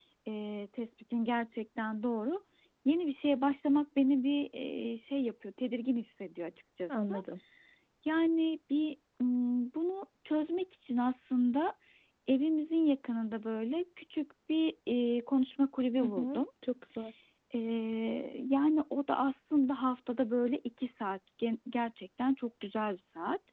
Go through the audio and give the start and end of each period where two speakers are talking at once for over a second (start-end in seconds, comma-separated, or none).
none